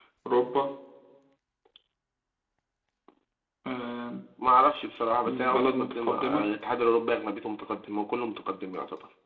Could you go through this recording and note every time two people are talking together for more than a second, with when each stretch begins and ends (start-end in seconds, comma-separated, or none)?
5.2-6.5